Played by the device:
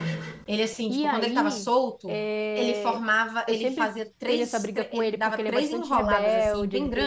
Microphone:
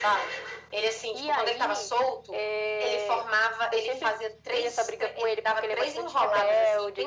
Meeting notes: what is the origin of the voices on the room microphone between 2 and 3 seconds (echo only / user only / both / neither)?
echo only